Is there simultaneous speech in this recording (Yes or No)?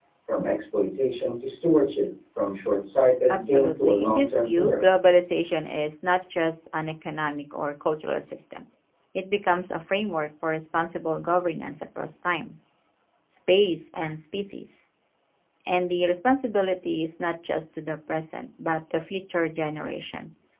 Yes